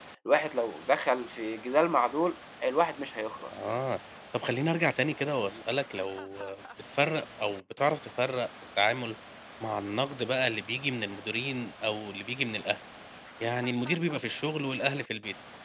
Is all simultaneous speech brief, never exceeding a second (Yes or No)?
Yes